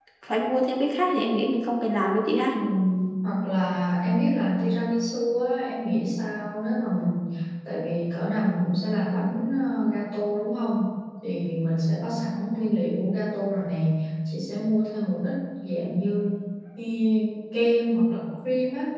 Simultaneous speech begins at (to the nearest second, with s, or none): none